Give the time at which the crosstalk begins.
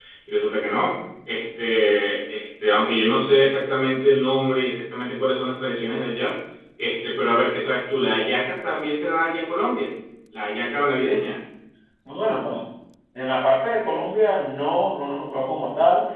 none

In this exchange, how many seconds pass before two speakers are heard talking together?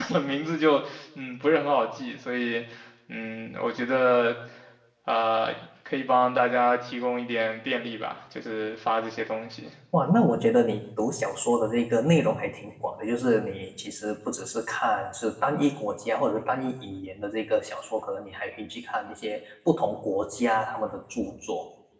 none

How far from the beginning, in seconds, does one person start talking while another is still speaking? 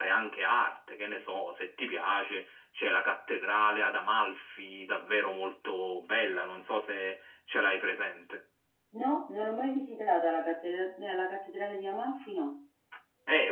none

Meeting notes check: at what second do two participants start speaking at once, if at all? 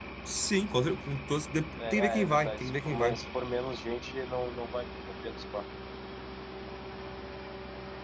1.8 s

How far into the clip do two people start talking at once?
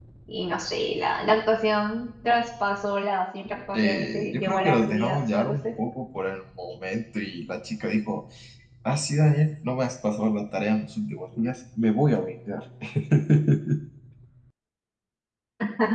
3.7 s

